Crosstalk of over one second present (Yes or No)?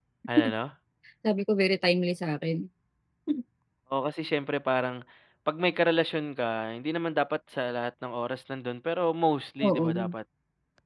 No